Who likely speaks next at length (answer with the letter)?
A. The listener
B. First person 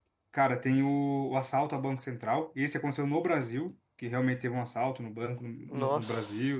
B